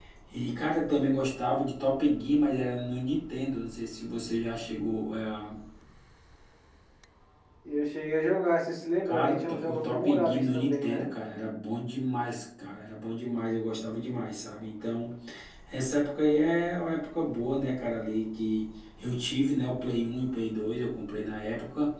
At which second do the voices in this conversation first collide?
9.1 s

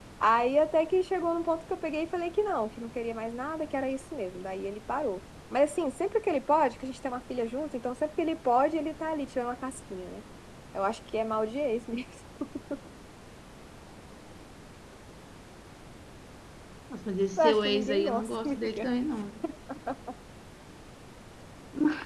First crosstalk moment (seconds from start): 17.4 s

